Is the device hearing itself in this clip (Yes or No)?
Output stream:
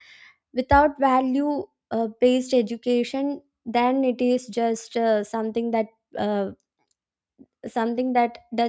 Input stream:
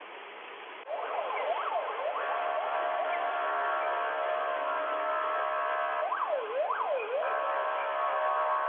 No